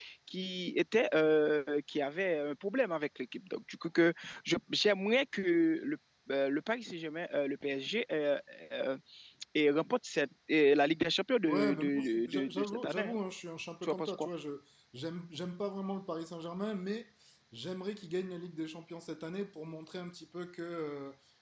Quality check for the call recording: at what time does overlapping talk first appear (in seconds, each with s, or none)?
11.4 s